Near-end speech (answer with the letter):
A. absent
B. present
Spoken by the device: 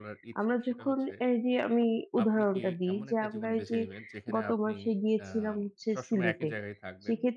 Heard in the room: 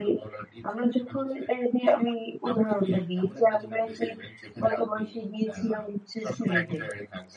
A